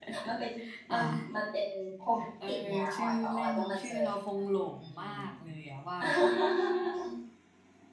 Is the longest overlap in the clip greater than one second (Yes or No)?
Yes